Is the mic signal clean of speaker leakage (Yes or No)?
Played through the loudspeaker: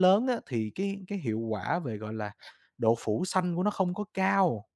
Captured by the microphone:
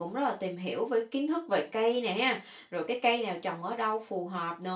Yes